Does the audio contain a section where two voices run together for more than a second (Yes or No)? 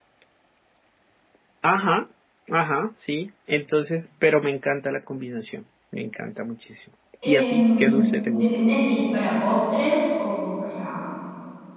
Yes